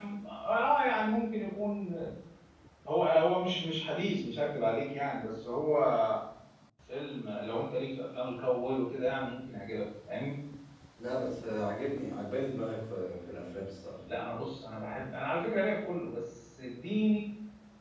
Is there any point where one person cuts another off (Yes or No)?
No